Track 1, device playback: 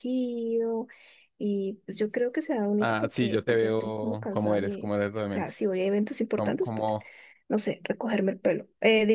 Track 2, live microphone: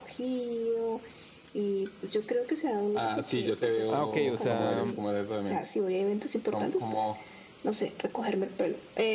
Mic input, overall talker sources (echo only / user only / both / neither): both